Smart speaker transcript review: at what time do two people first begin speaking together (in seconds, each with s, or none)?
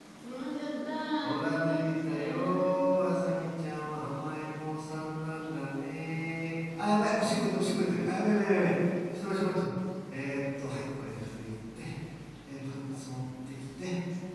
1.2 s